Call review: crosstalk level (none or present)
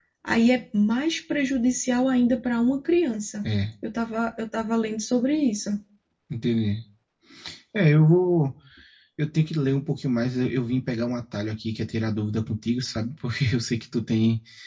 none